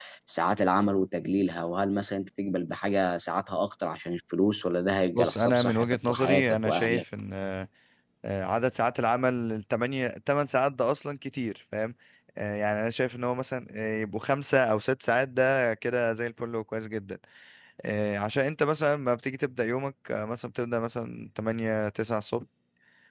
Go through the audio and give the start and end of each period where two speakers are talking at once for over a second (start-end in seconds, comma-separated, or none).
5.2-7.0